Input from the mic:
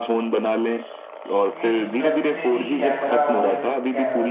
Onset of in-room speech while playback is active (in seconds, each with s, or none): 1.6 s